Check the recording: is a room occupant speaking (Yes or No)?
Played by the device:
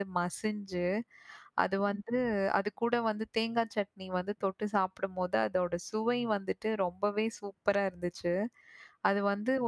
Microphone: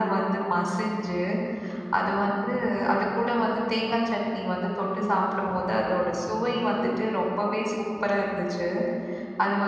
No